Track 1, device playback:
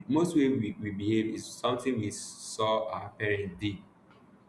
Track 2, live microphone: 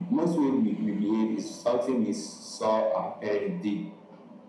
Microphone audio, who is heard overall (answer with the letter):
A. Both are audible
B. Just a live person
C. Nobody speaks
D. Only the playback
D